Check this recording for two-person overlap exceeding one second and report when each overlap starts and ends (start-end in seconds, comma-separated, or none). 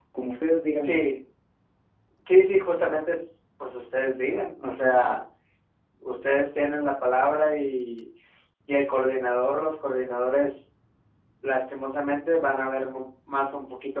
none